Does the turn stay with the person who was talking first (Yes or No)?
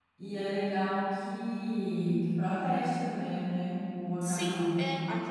No